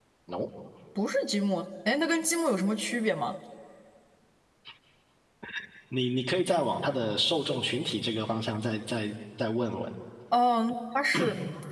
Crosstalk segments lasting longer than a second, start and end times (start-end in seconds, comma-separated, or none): none